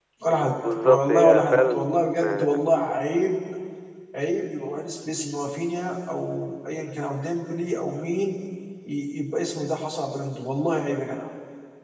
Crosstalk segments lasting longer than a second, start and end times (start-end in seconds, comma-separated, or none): 0.8-2.6